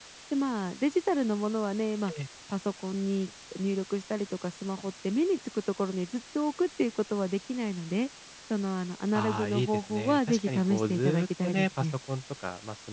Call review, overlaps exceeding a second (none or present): present